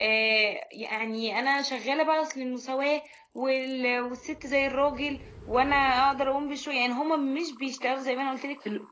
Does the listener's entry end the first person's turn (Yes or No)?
No